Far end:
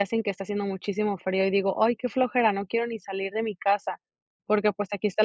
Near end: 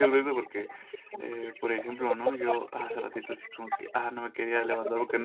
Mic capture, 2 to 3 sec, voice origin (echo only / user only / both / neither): both